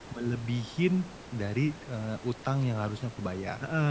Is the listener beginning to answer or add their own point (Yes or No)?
Yes